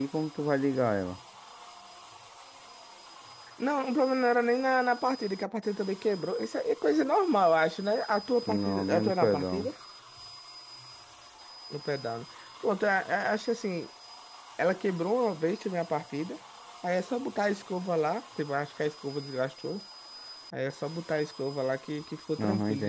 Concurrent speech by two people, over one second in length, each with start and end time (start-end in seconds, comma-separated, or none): 8.5-9.7